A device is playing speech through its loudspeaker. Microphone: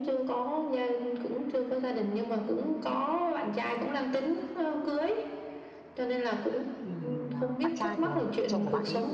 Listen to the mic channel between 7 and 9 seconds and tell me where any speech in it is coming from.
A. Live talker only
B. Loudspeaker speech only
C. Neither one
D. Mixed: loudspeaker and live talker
D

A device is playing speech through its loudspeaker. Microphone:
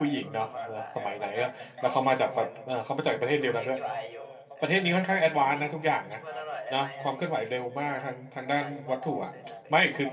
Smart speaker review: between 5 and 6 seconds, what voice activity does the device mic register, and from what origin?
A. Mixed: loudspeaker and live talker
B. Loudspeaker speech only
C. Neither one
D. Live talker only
A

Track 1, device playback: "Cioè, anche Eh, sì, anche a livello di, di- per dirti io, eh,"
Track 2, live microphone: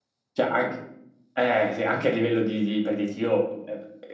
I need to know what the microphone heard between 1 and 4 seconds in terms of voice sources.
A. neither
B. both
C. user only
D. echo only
D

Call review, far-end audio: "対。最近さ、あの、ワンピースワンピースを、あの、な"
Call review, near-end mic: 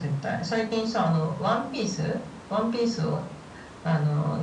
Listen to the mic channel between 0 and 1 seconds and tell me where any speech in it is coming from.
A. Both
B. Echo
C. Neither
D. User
B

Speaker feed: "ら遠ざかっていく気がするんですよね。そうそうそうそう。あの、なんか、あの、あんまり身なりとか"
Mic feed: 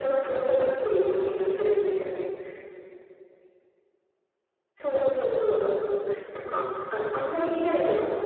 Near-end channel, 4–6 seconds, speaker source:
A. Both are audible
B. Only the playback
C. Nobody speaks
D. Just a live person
B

